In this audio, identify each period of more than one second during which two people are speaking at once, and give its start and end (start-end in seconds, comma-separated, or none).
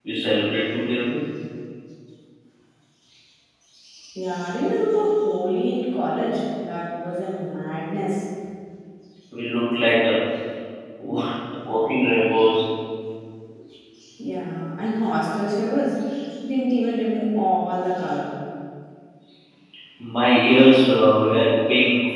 none